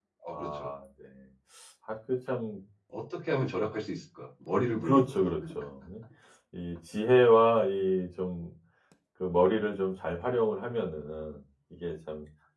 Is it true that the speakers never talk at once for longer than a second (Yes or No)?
Yes